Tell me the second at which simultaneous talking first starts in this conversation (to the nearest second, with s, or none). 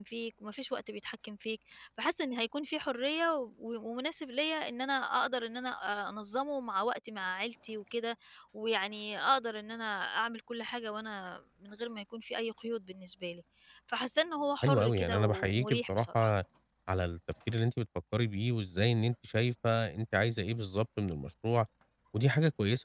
15 s